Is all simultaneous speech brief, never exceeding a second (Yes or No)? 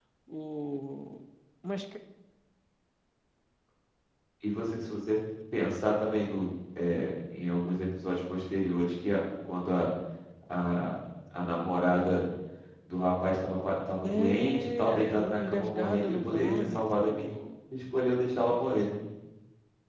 No